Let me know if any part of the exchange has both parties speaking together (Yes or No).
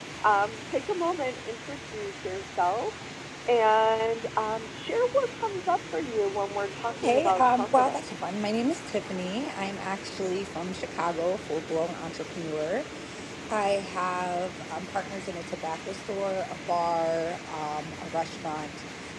Yes